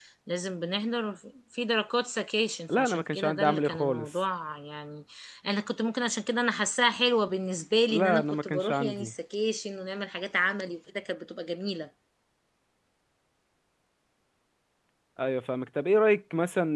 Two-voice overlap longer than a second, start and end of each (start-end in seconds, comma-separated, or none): 2.8-4.1, 7.9-9.1